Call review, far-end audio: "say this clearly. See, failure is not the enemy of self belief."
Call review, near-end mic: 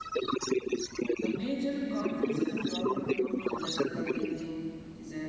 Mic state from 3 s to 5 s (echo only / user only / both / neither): both